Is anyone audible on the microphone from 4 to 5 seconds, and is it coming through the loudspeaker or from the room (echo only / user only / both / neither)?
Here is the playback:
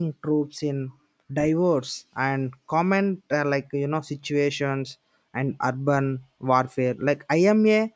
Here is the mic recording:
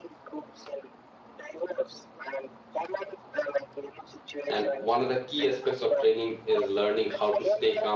both